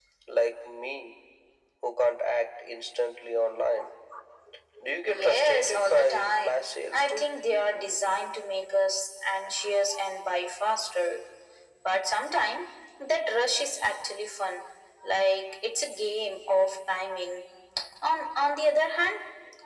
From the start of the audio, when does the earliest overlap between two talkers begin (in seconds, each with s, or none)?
5.1 s